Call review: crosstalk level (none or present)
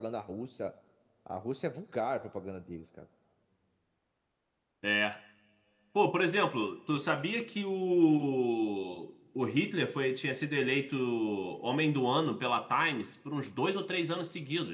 none